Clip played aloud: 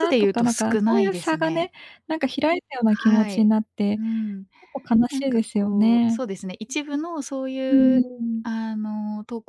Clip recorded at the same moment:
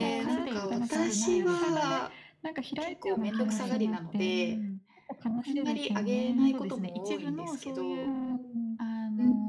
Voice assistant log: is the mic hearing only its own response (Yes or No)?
No